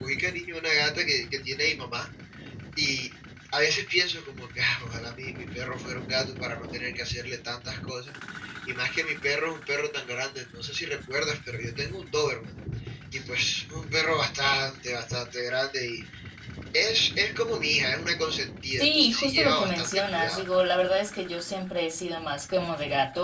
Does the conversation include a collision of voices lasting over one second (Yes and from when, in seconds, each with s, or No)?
Yes, from 18.7 s